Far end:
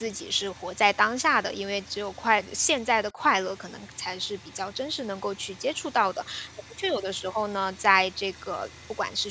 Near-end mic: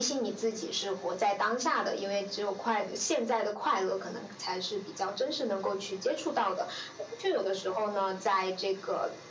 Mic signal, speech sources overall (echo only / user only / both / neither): echo only